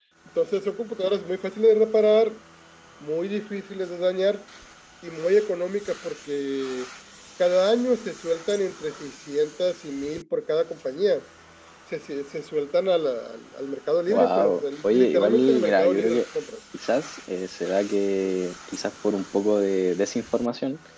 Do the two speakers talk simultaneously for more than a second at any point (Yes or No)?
Yes